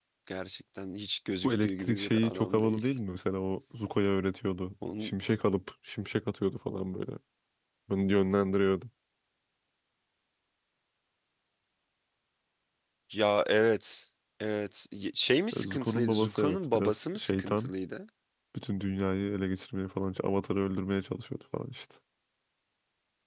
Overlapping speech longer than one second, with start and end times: 1.4-2.9, 15.6-17.7

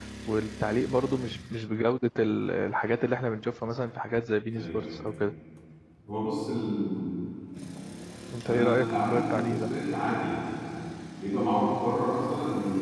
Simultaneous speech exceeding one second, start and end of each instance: 8.4-9.7

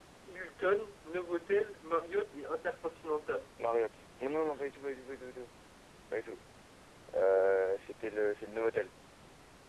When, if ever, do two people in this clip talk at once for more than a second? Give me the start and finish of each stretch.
none

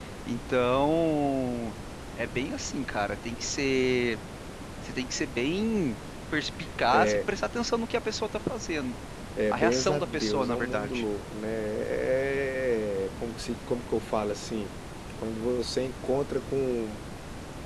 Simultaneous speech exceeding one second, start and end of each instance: 9.5-11.0

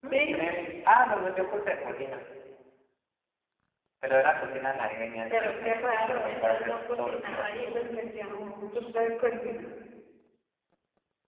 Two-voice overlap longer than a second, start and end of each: 5.3-7.5

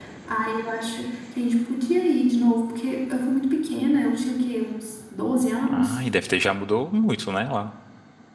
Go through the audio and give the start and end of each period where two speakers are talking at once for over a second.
none

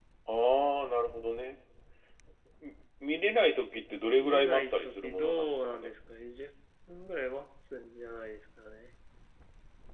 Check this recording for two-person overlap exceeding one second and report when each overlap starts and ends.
4.2-5.9

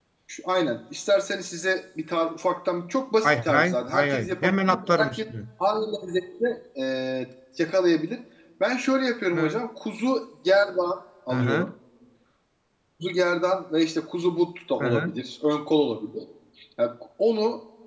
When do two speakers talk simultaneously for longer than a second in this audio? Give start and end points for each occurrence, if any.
3.2-5.2

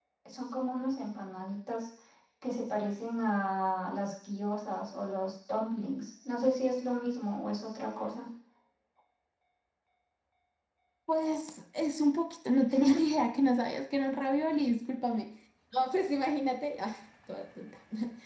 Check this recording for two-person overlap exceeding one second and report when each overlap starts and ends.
none

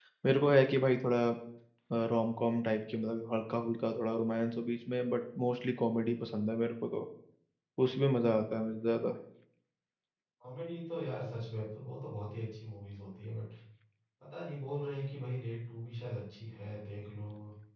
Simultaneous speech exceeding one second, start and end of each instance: none

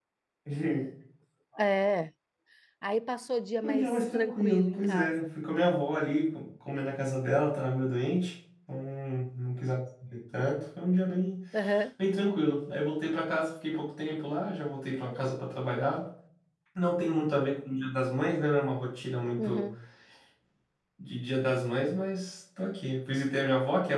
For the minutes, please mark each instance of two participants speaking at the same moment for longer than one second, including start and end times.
3.6-5.3

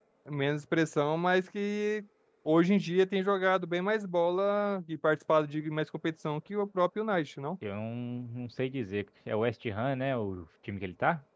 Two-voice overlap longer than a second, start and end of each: none

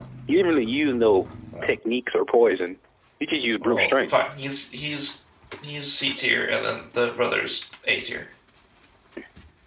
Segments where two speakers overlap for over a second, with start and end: none

